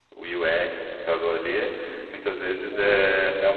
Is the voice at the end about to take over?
No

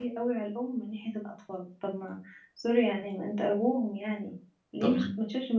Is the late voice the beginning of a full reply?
No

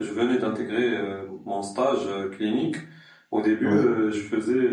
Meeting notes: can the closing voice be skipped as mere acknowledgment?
Yes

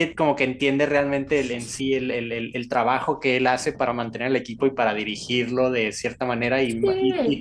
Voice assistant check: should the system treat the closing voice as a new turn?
No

